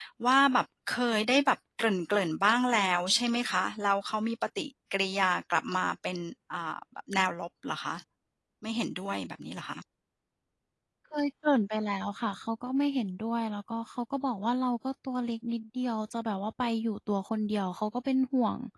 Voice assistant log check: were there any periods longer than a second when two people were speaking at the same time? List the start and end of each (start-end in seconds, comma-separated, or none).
none